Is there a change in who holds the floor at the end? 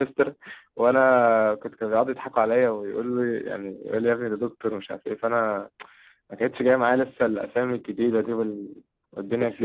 Yes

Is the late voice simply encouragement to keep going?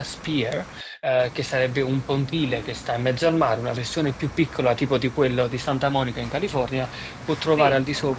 Yes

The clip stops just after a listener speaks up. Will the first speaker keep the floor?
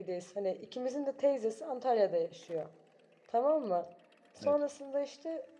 Yes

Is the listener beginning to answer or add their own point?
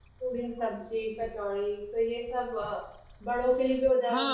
Yes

